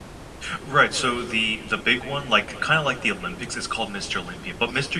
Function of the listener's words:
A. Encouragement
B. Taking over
A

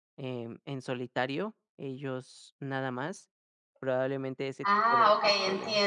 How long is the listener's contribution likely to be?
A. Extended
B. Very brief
A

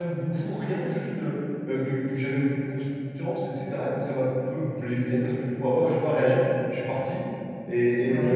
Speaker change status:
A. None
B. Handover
A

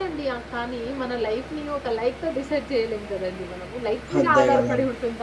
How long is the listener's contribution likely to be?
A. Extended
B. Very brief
B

